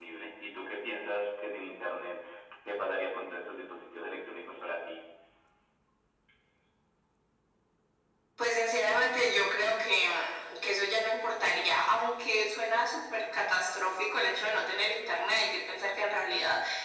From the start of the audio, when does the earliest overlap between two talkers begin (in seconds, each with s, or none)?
none